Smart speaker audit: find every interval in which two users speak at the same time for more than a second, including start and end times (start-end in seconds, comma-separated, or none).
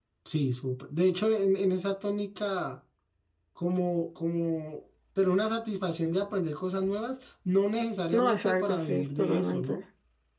8.1-9.8